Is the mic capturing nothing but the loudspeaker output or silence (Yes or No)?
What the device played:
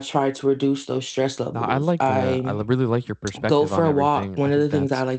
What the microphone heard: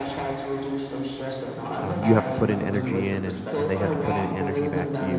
No